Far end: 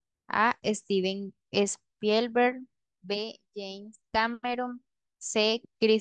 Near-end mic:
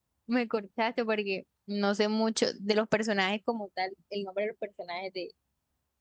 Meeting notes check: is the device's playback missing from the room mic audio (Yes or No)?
Yes